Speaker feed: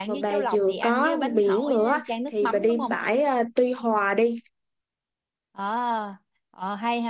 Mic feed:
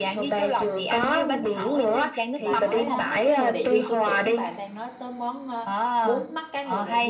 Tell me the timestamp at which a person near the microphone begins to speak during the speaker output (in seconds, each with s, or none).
2.4 s